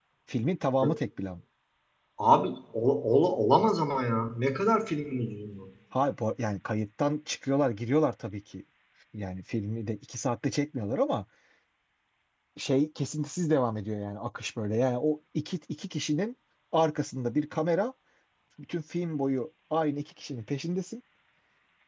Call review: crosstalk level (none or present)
none